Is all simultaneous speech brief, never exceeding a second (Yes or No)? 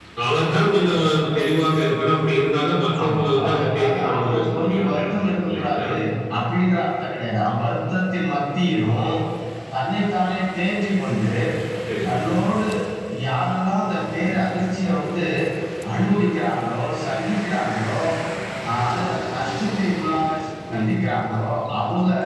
No